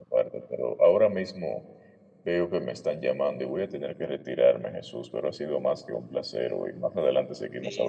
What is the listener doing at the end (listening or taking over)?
taking over